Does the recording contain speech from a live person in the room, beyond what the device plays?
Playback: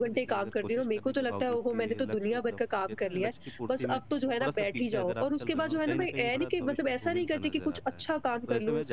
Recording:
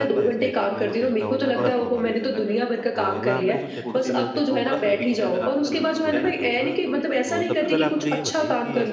Yes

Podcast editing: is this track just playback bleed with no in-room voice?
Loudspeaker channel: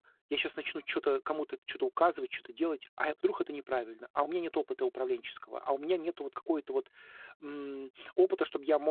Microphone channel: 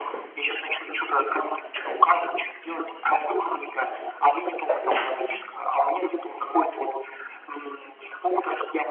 Yes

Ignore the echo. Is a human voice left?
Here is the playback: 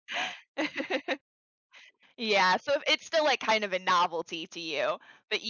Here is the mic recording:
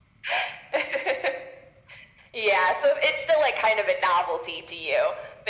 No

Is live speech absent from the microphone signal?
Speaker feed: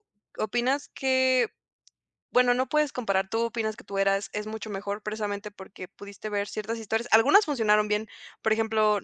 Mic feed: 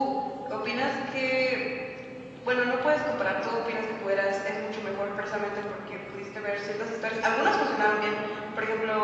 Yes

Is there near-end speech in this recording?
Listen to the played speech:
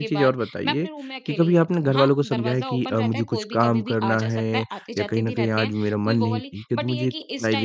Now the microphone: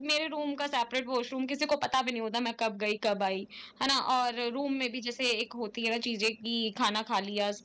Yes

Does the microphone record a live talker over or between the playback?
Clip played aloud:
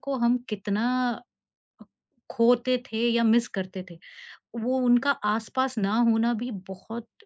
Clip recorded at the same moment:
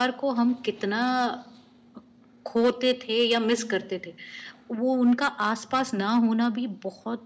No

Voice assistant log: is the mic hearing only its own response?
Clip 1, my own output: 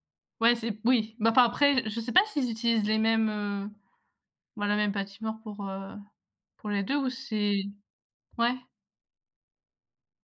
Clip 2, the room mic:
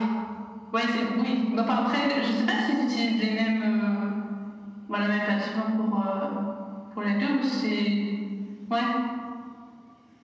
Yes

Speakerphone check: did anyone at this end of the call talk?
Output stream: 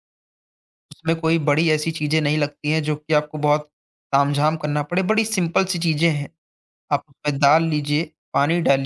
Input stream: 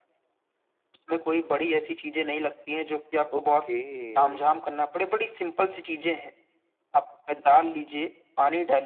Yes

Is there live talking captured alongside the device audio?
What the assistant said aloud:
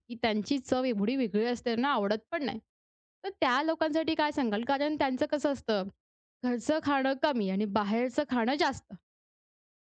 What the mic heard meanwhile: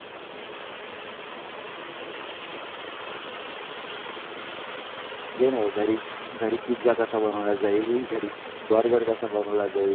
Yes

